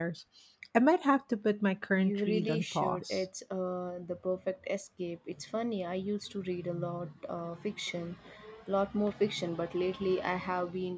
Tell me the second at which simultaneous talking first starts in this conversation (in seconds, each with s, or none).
2.0 s